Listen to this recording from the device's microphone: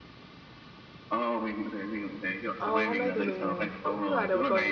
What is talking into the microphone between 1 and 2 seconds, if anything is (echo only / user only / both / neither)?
echo only